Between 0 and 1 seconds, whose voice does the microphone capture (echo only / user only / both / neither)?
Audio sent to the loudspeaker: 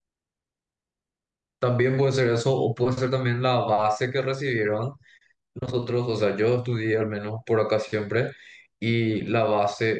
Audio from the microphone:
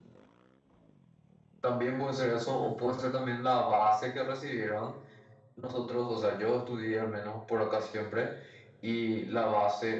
neither